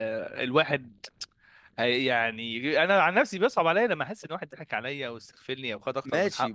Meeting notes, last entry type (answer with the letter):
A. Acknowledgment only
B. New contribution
B